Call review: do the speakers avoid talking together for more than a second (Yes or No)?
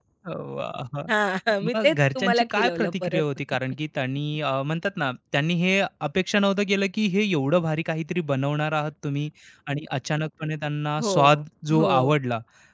No